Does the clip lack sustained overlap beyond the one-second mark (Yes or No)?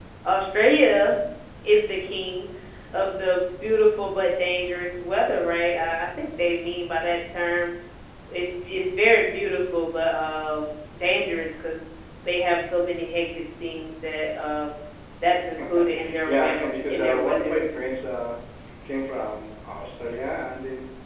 No